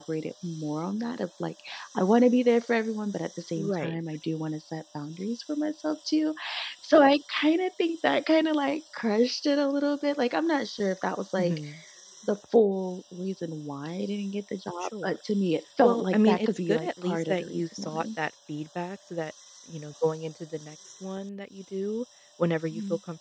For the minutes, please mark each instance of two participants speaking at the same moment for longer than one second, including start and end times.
15.8-18.1

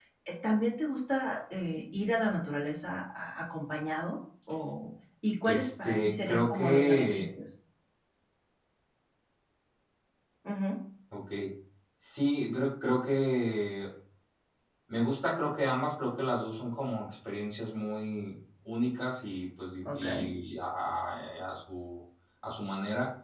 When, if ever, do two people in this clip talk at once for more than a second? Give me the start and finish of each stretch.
5.4-7.3

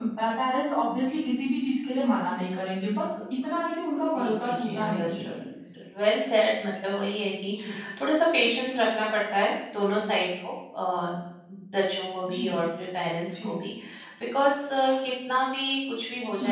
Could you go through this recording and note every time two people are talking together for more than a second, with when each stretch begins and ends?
4.2-5.4

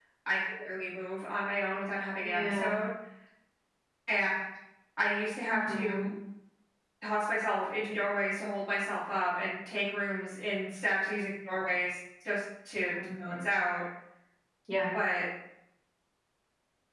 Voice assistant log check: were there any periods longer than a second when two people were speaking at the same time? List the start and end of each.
none

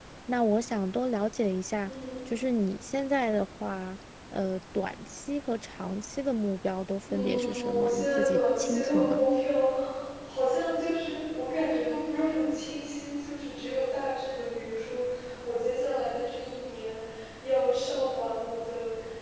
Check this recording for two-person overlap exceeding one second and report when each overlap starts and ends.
7.1-9.3

